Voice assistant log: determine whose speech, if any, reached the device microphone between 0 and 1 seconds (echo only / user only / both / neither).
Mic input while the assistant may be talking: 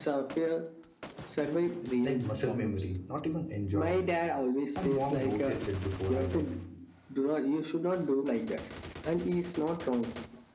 echo only